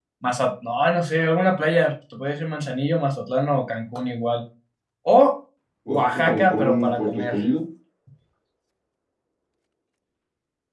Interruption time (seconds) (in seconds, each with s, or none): 5.9 s